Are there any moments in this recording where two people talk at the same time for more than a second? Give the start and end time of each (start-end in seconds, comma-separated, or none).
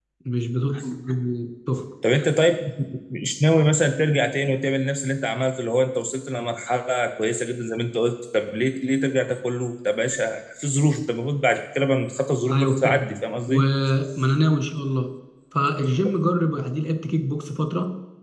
none